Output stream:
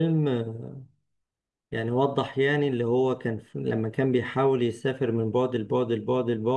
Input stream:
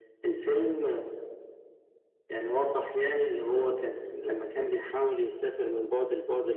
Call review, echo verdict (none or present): present